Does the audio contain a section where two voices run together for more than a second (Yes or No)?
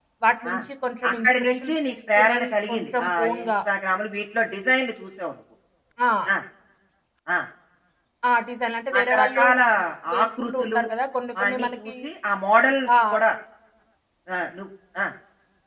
Yes